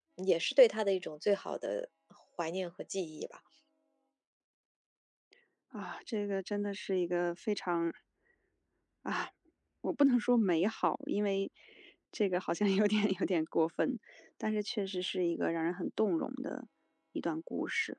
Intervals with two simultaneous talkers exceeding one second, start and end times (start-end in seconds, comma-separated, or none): none